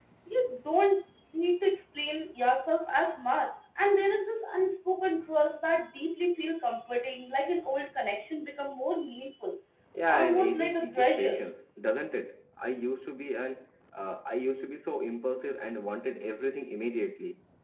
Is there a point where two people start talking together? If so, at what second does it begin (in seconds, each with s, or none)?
10.1 s